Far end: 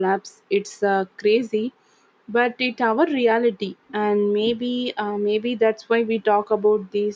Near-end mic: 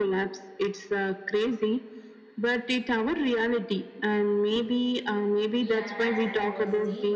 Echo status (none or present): present